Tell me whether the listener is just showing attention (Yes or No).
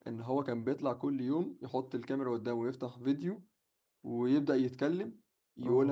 Yes